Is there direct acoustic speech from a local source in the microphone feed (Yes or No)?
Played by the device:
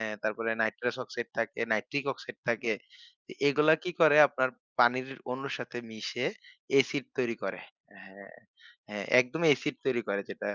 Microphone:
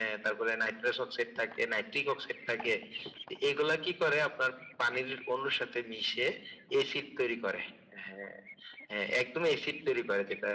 No